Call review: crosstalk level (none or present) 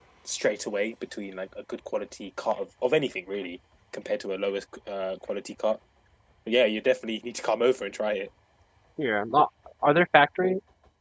none